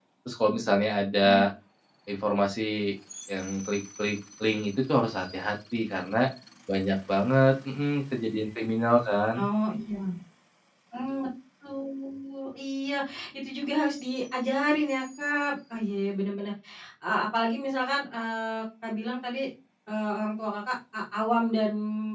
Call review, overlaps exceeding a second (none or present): none